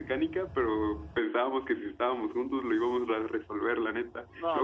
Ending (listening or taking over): listening